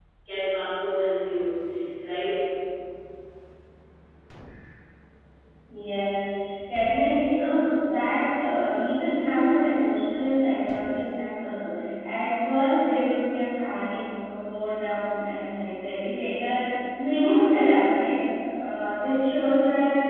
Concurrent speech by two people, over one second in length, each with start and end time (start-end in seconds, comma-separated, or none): none